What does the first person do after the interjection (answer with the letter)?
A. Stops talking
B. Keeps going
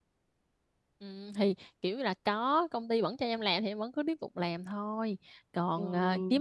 B